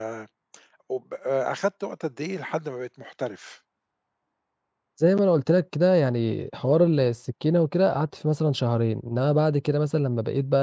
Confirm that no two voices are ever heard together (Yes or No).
Yes